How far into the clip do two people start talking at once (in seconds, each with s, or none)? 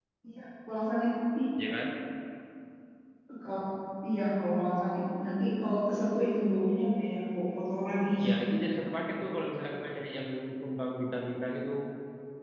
none